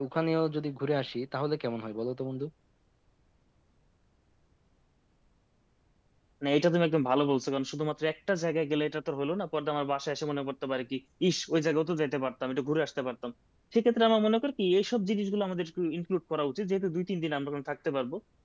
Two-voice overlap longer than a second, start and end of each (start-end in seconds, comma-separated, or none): none